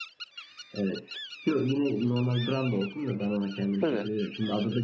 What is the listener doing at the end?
listening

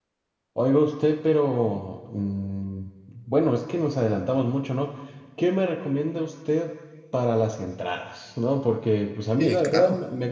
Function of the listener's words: listening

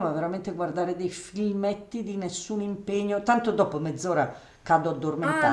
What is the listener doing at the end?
taking over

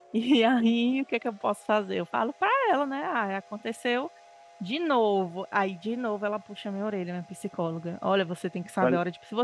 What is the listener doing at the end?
listening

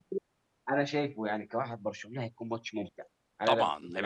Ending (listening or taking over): taking over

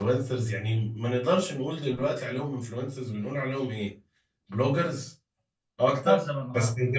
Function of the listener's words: listening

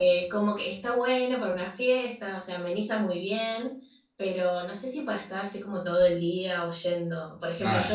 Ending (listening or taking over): listening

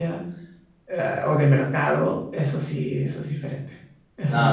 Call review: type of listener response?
taking over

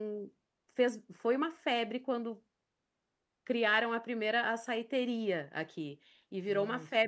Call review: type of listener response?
listening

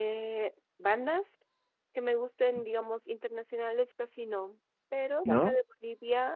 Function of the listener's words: listening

